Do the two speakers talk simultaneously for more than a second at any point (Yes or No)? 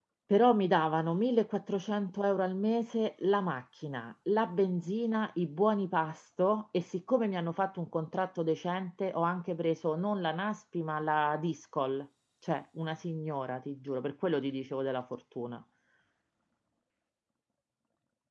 No